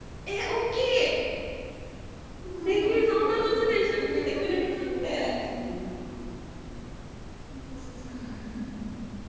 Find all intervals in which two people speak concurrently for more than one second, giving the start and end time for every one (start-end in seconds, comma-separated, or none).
2.6-5.4